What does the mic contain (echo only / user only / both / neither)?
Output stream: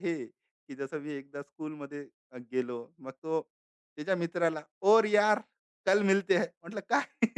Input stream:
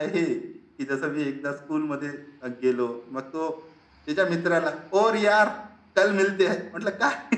echo only